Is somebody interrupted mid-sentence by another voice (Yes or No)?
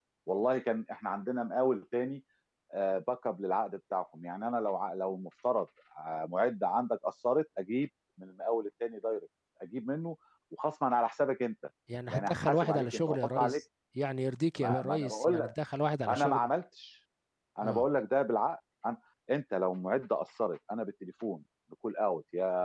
Yes